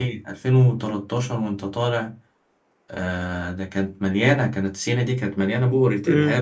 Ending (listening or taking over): listening